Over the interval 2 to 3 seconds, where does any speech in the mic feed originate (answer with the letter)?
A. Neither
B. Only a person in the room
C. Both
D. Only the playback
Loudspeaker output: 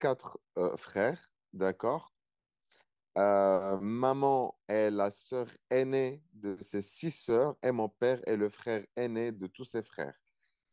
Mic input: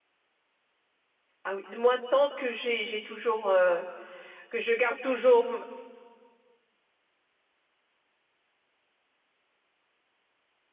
B